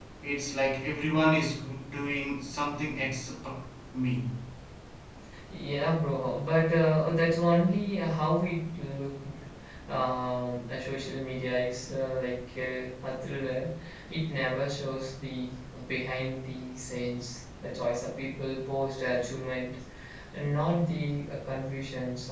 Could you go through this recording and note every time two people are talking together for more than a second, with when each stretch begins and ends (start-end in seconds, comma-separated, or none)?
none